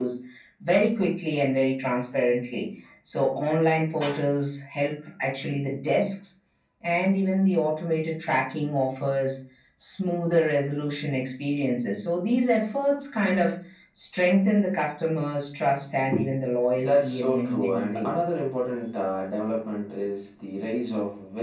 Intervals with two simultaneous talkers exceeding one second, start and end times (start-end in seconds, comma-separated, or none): 16.8-18.3